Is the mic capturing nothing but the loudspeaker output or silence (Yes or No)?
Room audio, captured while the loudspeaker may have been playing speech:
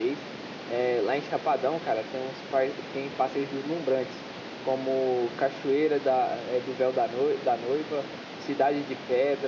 Yes